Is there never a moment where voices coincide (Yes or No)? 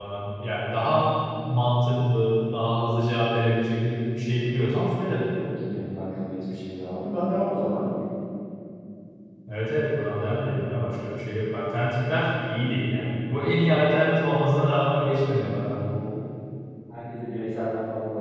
Yes